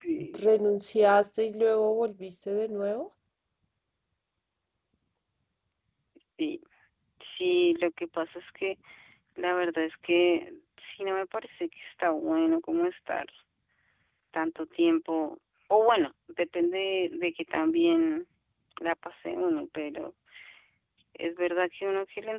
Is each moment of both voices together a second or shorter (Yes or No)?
Yes